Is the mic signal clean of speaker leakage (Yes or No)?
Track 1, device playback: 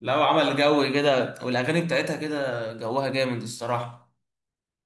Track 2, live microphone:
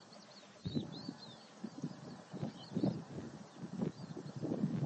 Yes